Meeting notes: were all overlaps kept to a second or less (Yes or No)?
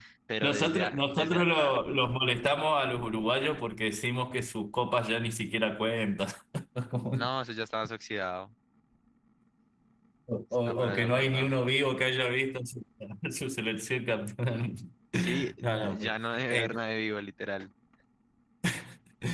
No